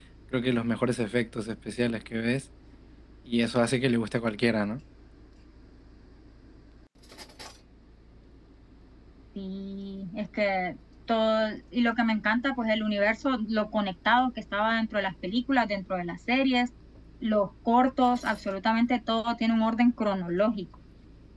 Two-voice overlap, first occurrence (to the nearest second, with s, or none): none